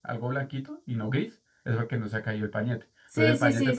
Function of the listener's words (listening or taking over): taking over